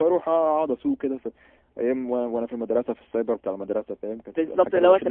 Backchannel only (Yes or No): No